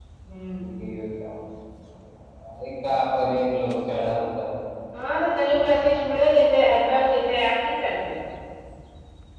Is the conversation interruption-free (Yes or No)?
Yes